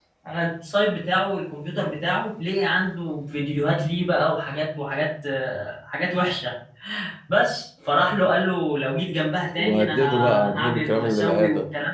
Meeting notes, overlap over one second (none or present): present